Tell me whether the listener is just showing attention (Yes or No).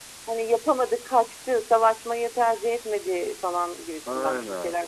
No